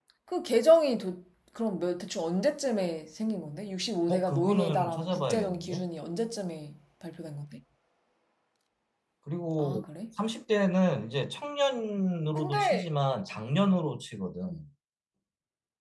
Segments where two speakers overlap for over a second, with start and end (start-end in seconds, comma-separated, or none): 4.1-5.9